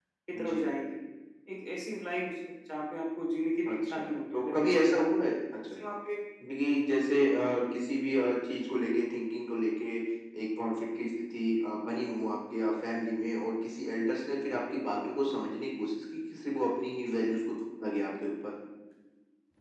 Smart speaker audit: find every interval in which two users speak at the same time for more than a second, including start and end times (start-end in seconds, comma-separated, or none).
3.7-5.0